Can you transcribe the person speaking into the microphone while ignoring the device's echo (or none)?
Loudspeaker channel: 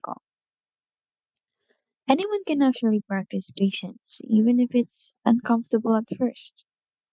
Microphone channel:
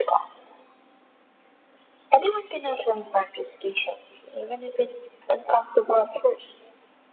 none